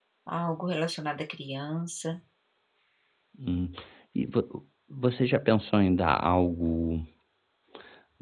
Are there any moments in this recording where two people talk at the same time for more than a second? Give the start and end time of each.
none

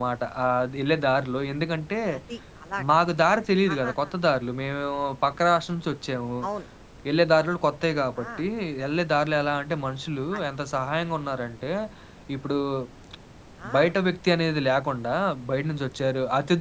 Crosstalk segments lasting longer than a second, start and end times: none

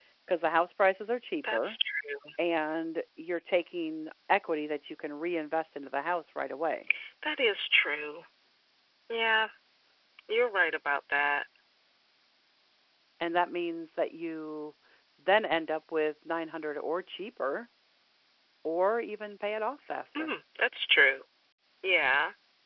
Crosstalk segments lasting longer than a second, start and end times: none

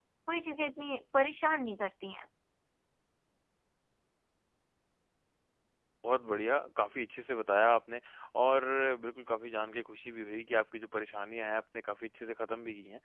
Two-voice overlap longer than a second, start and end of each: none

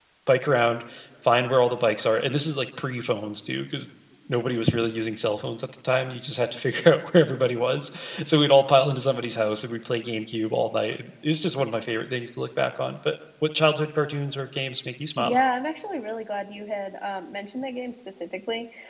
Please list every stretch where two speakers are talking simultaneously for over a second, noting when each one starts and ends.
none

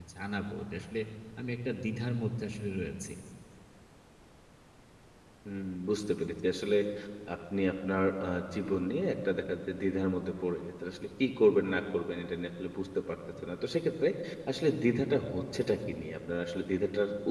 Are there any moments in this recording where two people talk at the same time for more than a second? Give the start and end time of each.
none

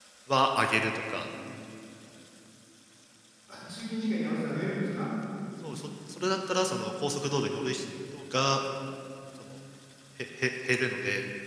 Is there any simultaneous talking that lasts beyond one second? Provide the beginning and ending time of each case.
none

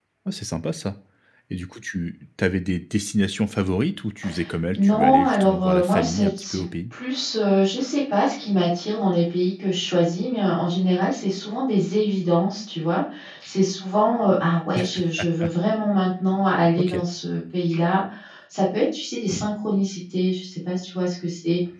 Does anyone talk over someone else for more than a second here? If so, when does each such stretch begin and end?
4.8-6.6

